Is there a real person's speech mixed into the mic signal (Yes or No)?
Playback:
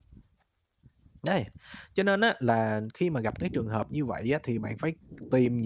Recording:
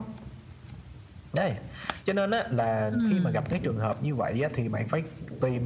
Yes